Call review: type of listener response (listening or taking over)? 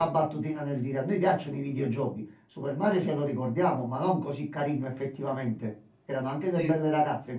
listening